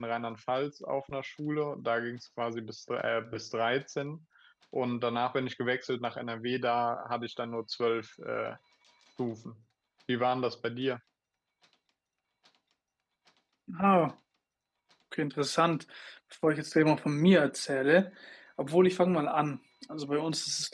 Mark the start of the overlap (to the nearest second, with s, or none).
none